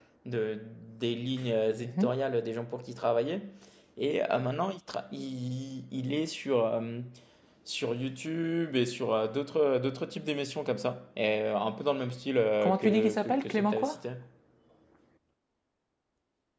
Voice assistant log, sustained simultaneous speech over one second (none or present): present